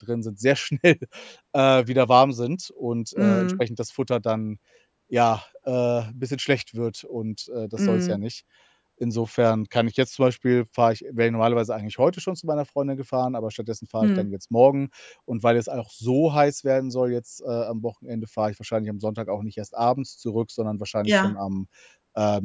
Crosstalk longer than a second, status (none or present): none